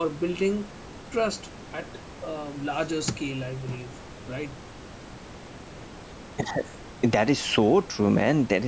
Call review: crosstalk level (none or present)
none